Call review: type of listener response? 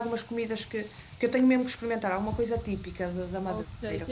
taking over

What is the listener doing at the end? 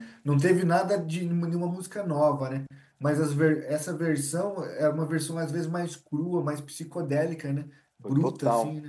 taking over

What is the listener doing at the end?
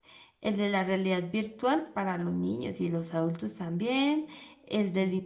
listening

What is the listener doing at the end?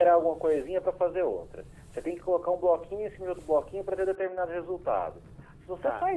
listening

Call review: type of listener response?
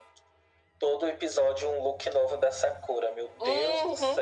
taking over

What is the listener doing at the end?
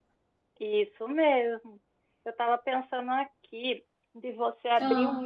listening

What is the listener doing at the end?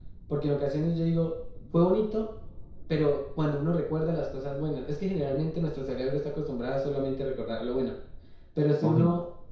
listening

